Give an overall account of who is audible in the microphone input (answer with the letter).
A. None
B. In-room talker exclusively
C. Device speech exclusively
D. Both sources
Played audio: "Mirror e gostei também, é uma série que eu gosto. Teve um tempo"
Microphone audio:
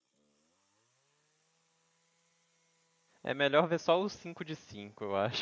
B